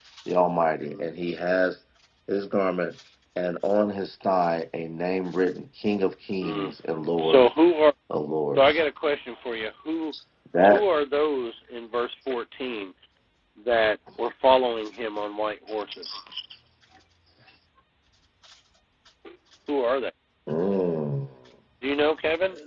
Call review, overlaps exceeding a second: none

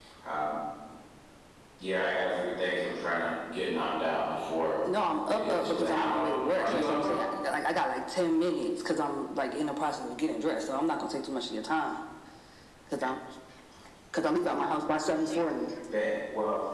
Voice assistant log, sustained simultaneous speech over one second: present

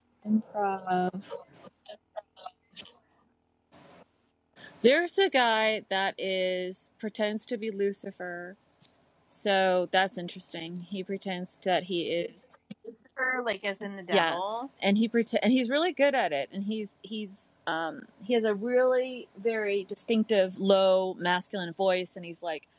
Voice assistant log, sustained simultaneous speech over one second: none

